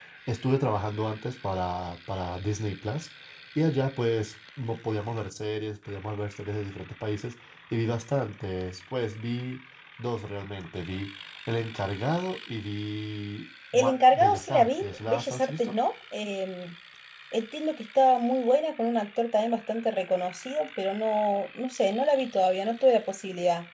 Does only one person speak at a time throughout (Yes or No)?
No